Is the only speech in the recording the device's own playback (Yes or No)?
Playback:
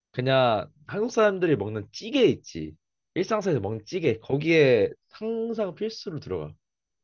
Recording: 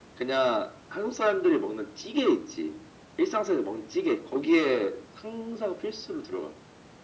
Yes